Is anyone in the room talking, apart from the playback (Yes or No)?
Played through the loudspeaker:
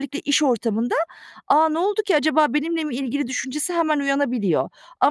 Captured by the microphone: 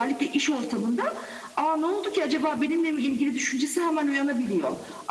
No